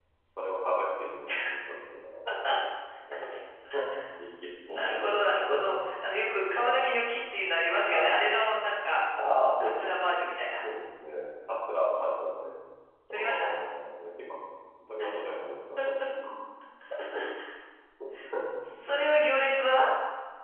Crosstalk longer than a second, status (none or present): none